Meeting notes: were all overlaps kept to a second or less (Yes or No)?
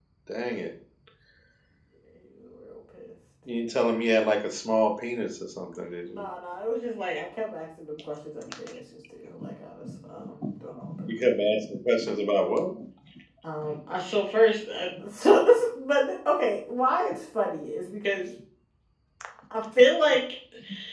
Yes